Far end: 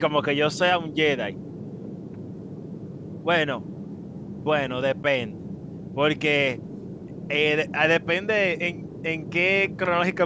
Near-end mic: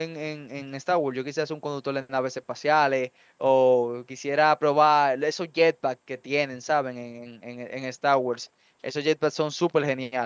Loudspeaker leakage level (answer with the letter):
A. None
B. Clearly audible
A